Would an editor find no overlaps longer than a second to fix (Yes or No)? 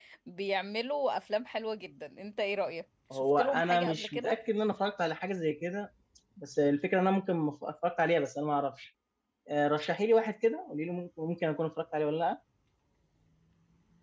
No